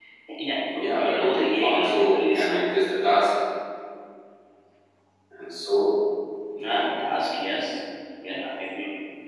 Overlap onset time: 0.7 s

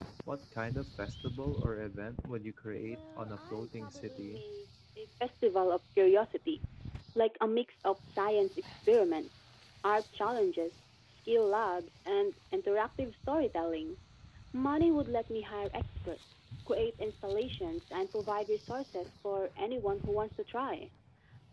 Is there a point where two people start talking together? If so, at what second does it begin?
2.8 s

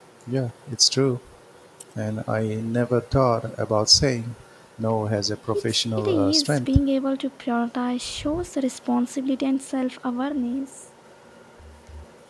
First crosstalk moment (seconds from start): 5.5 s

